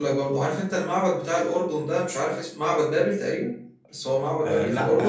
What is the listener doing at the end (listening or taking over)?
taking over